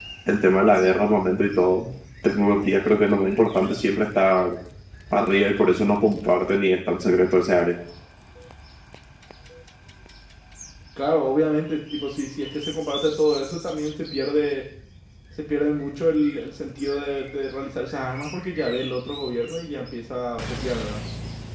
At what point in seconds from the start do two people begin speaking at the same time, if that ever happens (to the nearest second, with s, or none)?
none